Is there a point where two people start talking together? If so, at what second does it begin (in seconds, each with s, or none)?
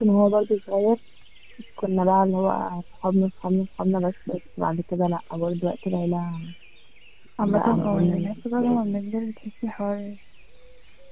7.4 s